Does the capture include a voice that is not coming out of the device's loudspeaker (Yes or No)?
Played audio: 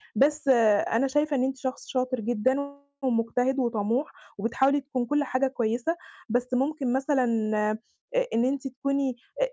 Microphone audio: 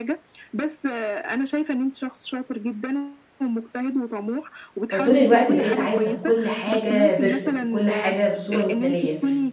Yes